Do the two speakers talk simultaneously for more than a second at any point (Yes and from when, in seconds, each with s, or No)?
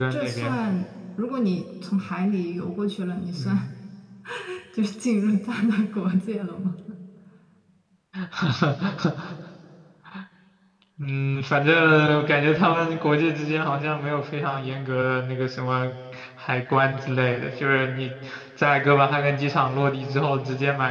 No